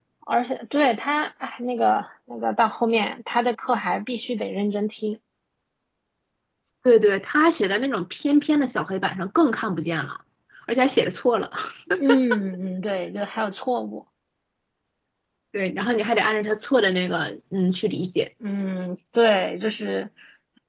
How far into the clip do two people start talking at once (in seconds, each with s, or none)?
none